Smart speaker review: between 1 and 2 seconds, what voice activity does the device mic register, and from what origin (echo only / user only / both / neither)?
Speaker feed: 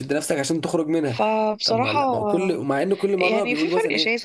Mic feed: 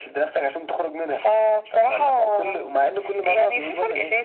echo only